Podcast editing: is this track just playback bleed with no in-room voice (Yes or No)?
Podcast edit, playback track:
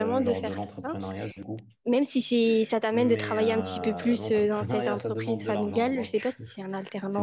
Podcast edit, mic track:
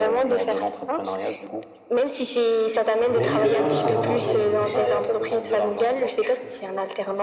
No